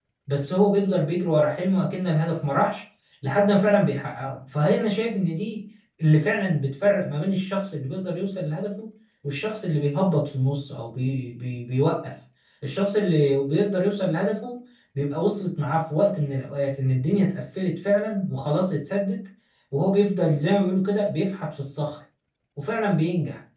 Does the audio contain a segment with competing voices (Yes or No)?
No